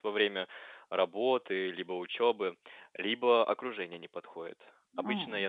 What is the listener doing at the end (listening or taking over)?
listening